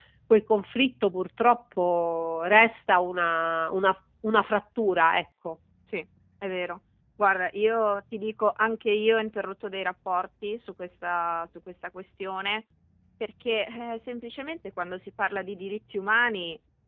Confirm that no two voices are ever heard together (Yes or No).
Yes